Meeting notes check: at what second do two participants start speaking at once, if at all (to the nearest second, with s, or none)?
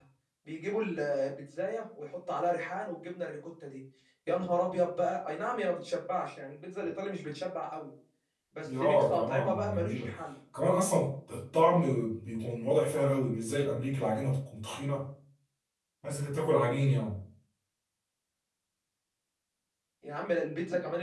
9 s